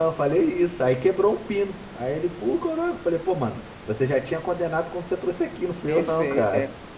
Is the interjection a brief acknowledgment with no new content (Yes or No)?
No